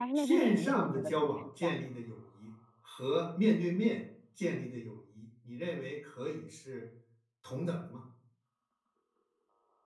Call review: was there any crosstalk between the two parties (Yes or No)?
Yes